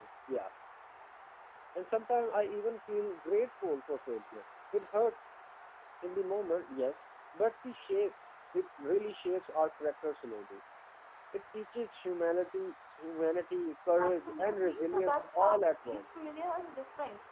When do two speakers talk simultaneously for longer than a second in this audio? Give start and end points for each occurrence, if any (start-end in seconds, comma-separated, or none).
14.0-16.0